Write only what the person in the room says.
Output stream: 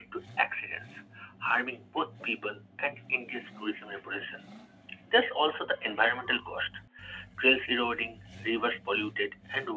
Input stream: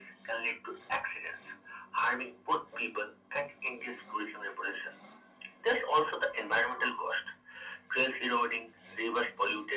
none

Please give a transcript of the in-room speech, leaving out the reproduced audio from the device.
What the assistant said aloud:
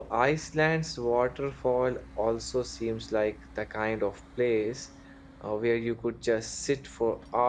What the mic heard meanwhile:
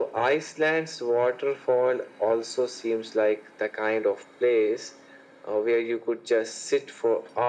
none

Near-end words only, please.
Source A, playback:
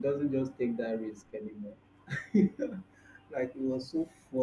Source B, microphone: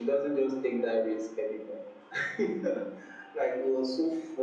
none

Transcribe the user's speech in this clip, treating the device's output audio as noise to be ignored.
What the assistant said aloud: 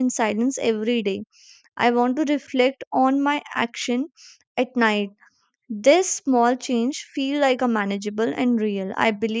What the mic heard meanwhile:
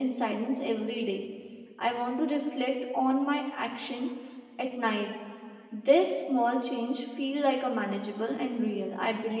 none

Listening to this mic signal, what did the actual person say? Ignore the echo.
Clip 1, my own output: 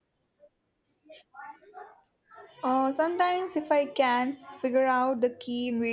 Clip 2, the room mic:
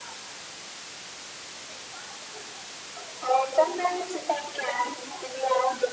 none

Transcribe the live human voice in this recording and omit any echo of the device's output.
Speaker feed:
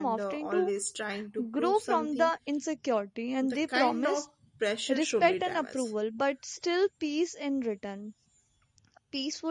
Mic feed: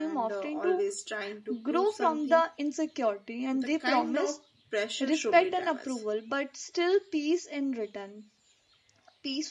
none

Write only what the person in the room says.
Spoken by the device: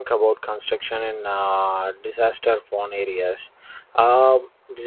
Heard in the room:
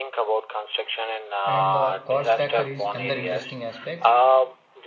And the cost factor is another interesting aspect.

